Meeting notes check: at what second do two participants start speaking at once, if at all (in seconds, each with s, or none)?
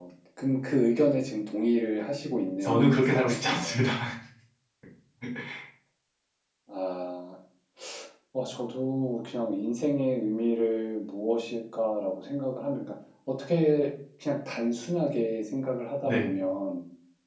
2.6 s